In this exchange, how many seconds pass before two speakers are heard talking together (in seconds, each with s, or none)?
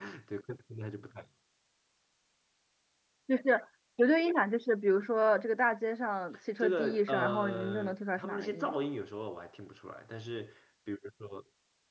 6.6 s